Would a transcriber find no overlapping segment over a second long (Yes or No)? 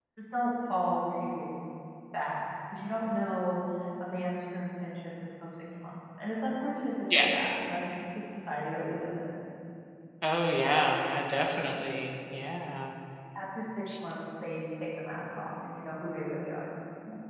Yes